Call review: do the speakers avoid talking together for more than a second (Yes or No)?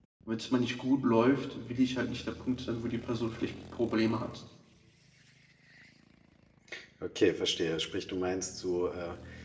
Yes